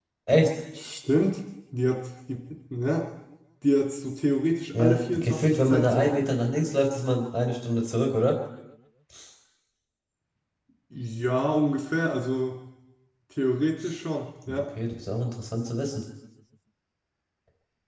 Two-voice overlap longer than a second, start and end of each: 4.8-6.2

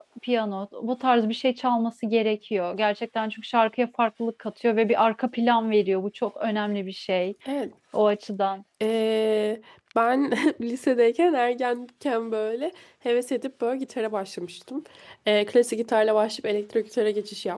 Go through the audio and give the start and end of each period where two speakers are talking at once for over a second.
none

